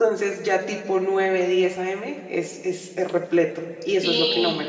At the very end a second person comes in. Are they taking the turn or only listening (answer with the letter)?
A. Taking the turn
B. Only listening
A